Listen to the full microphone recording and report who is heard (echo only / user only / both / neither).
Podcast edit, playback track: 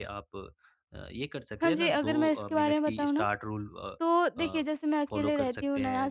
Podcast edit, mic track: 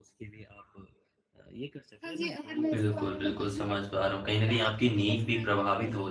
both